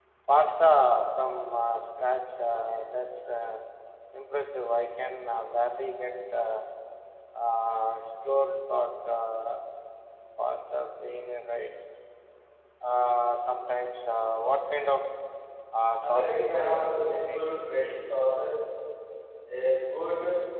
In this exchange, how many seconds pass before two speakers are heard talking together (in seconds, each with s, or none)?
16.0 s